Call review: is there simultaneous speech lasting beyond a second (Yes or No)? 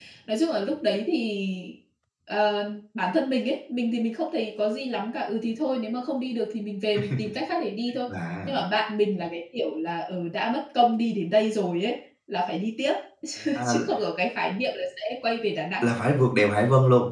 No